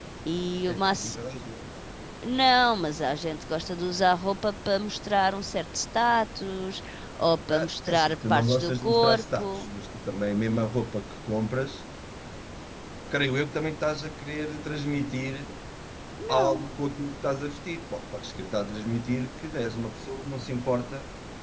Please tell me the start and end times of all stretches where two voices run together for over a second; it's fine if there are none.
7.5-9.7

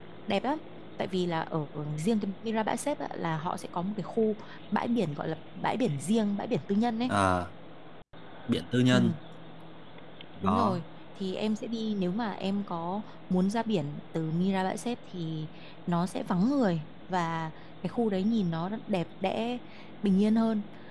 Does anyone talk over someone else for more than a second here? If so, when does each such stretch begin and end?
none

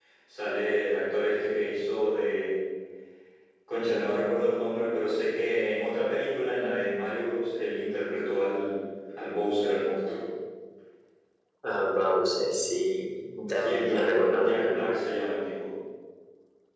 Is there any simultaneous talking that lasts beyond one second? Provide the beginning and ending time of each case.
13.5-15.0

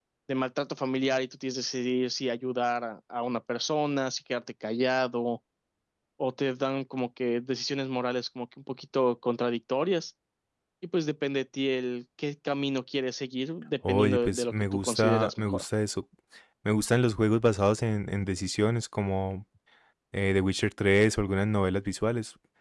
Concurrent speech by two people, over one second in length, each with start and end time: 13.9-15.7

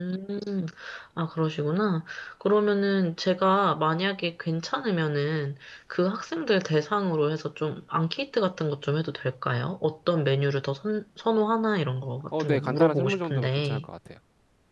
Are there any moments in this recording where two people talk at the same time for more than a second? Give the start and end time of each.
12.4-13.9

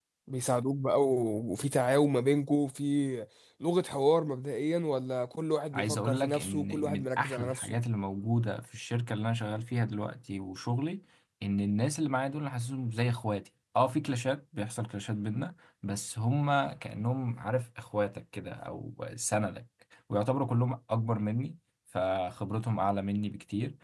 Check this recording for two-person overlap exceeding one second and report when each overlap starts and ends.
5.7-7.8

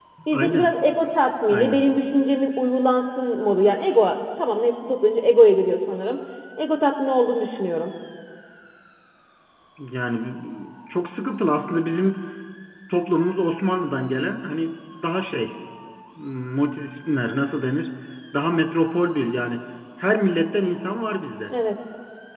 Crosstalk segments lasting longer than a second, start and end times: none

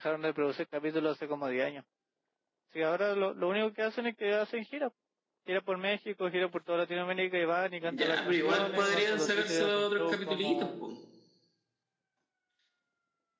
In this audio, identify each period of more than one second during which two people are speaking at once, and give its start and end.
7.8-10.8

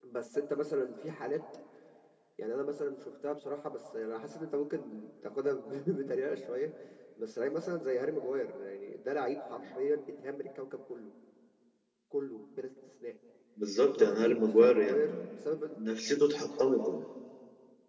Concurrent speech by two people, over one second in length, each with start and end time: 13.9-15.2

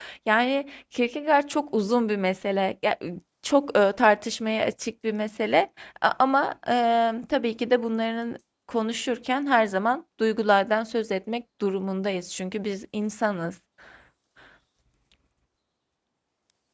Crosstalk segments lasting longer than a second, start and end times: none

